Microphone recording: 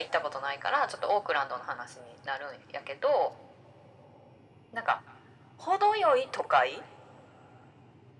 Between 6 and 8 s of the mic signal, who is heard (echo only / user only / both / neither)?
echo only